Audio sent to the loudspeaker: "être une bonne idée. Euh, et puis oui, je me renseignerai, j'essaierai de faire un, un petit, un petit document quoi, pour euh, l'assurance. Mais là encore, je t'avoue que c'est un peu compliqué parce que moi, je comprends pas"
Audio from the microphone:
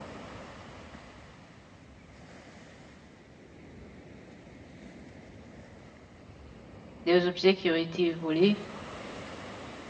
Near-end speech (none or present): present